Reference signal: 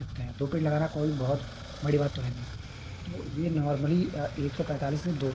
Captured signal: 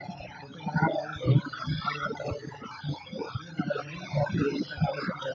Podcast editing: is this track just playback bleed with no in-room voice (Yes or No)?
Yes